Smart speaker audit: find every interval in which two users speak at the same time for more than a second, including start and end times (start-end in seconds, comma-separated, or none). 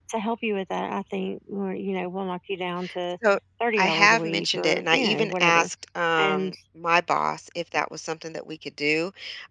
3.8-5.7